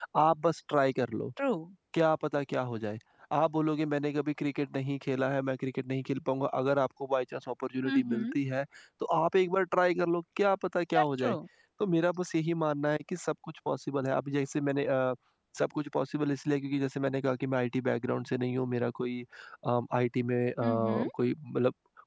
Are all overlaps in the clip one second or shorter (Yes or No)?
Yes